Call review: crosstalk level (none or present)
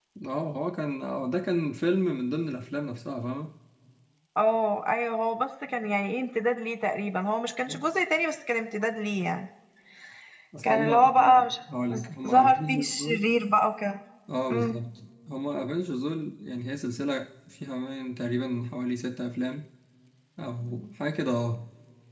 present